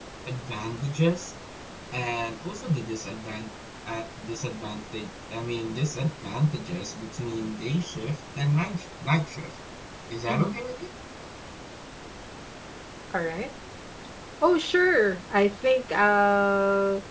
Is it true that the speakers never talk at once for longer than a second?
Yes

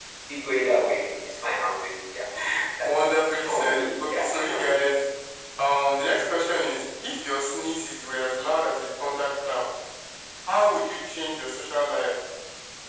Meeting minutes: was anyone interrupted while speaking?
Yes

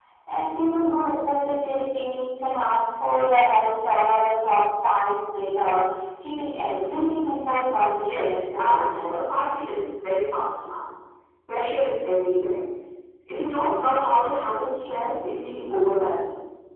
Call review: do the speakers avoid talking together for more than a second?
No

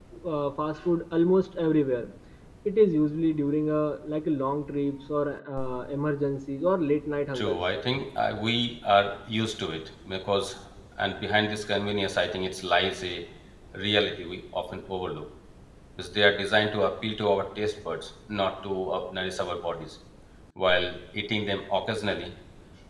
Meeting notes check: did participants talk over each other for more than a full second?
No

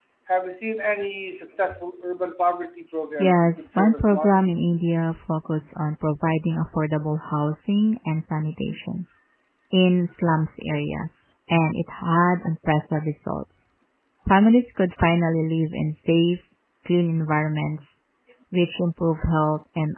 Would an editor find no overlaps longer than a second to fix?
No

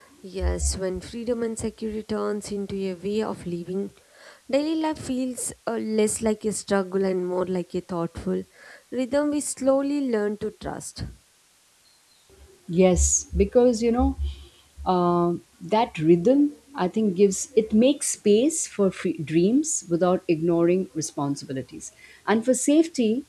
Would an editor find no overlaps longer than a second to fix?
Yes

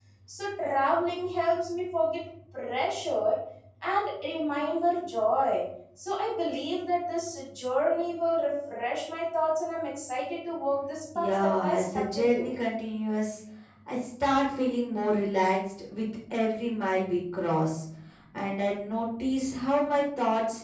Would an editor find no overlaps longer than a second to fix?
No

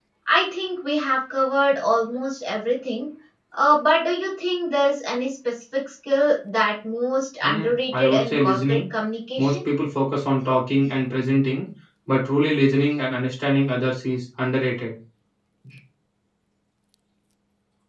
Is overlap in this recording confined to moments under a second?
No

